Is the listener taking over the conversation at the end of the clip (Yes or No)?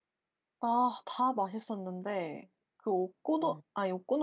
No